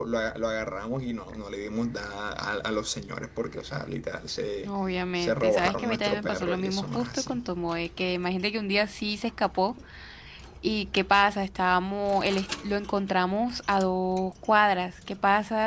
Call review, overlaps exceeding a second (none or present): present